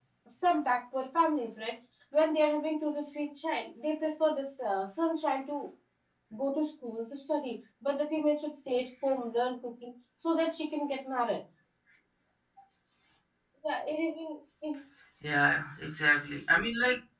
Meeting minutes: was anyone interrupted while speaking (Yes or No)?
No